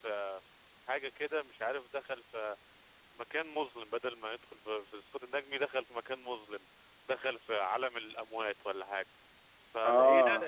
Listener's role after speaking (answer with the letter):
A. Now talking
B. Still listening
B